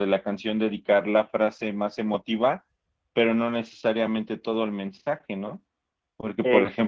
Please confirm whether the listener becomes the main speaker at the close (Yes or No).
No